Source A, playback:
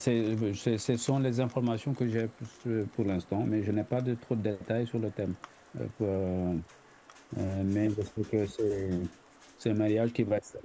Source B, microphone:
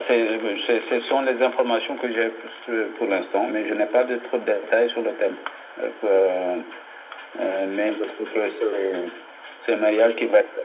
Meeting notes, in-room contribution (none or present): none